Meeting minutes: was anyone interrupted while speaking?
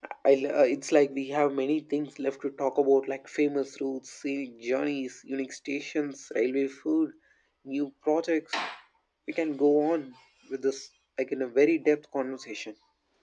No

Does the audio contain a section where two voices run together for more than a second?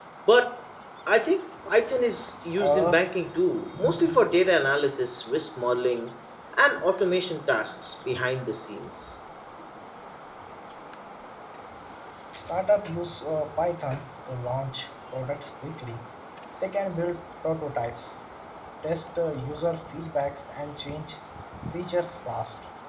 No

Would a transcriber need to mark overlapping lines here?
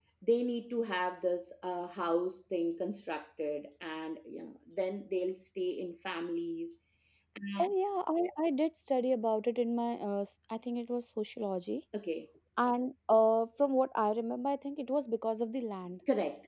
No

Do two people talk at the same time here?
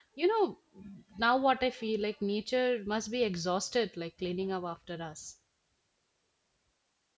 No

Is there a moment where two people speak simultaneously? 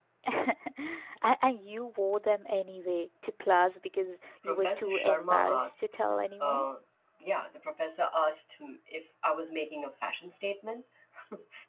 Yes, from 4.4 s

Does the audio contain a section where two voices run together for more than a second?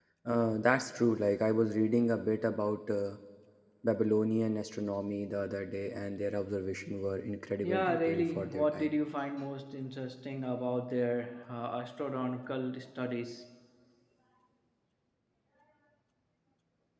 Yes, from 7.6 s

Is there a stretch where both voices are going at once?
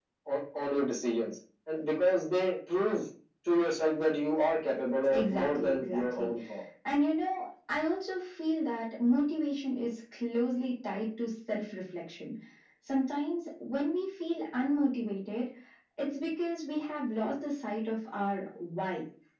Yes, from 5.0 s

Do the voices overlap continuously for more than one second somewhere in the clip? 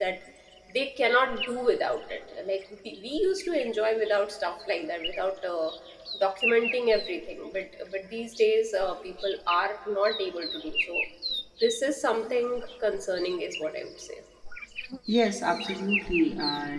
No

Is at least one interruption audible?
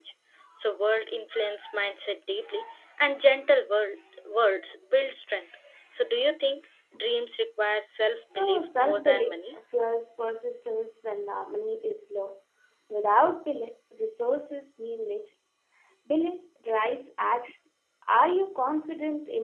Yes, from 8.3 s

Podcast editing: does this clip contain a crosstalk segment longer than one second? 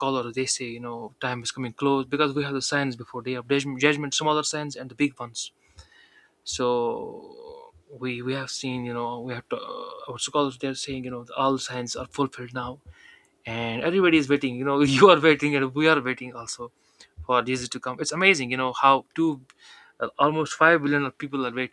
No

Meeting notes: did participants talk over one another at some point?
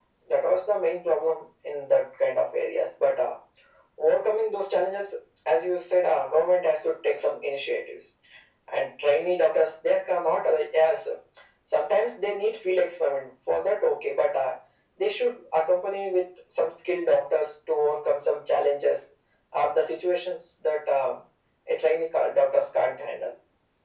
No

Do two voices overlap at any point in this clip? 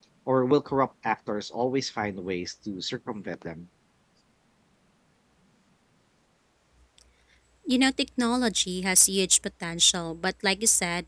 No

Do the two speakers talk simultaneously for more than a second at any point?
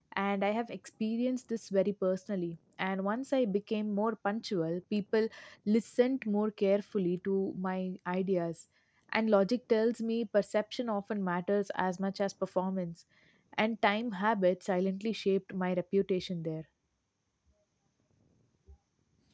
No

